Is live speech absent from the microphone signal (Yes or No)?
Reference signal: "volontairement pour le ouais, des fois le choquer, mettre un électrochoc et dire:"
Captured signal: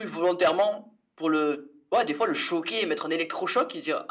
Yes